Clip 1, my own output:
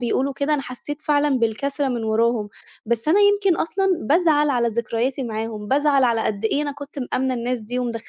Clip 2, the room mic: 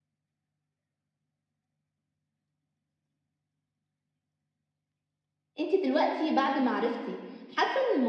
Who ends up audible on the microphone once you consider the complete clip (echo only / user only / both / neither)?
user only